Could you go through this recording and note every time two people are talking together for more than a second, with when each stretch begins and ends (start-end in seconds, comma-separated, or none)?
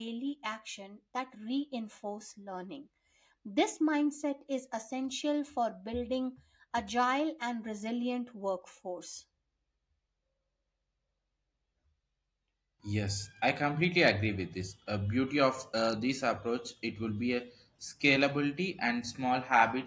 none